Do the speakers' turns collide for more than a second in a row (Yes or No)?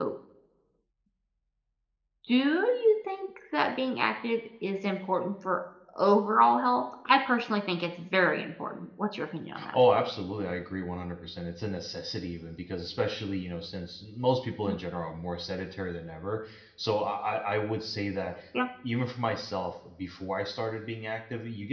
No